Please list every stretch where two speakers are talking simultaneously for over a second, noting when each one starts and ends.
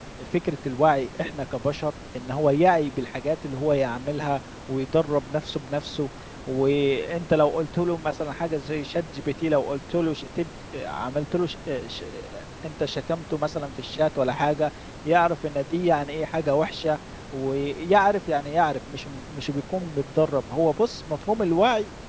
none

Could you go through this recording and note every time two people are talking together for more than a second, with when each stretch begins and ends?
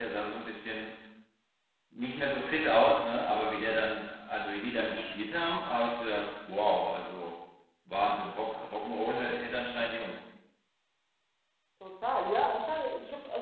none

